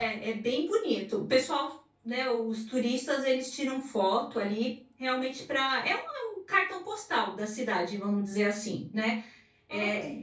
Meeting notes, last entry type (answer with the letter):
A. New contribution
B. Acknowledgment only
B